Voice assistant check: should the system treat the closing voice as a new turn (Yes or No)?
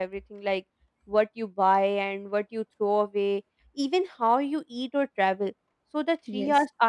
No